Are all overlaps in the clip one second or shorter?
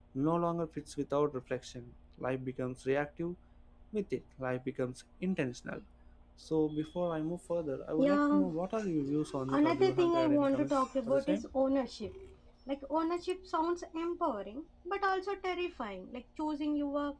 No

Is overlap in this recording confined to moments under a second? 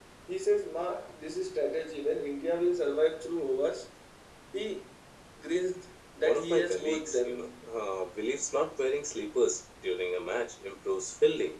No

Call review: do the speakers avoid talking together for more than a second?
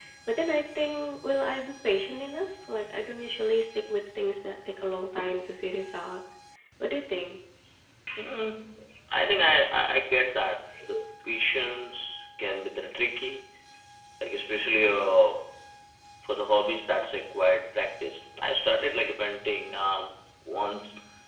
Yes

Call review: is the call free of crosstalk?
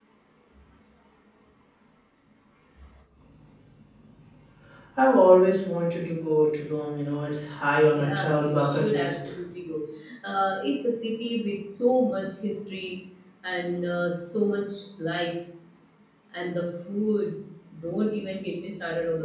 No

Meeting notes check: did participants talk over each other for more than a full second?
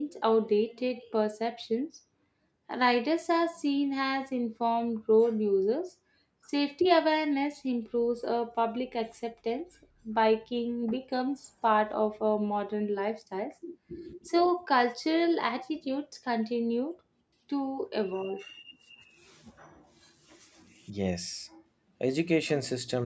No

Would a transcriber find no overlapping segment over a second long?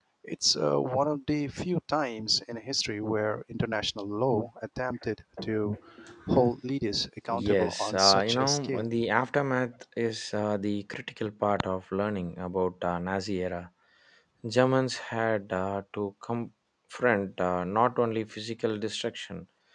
No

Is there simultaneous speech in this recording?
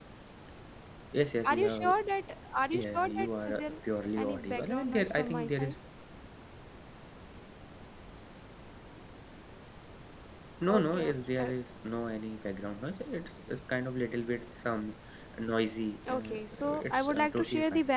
Yes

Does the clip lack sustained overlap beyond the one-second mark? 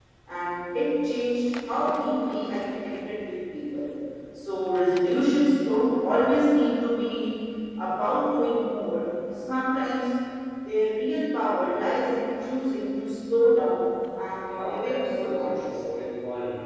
No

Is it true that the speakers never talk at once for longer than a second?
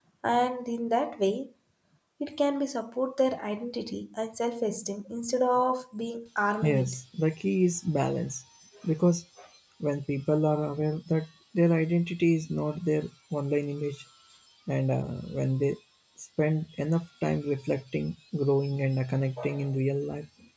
Yes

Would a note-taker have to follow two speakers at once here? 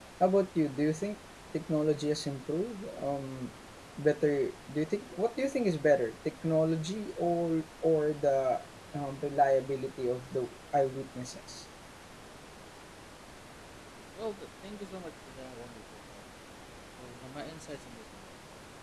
No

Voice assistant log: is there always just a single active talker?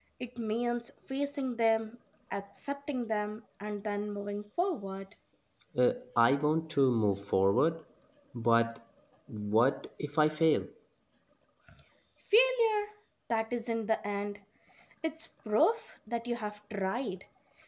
Yes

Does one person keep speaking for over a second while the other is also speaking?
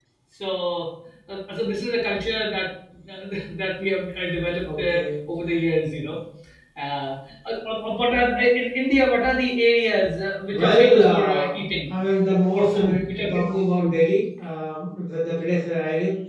Yes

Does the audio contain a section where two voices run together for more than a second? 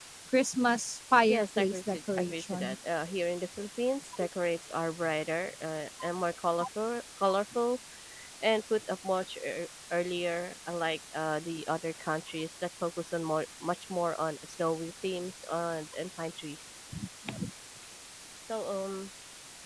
Yes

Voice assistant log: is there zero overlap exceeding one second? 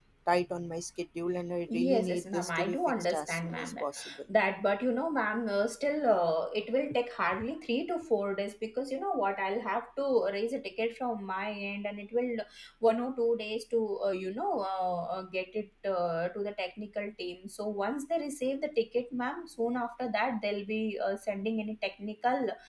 No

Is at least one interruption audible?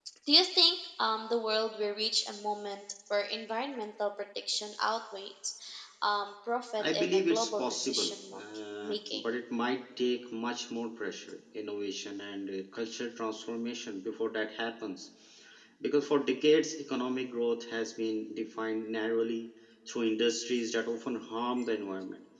Yes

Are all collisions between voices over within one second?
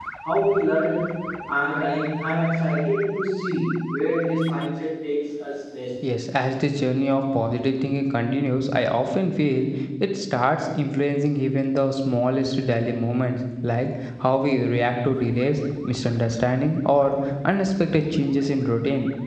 Yes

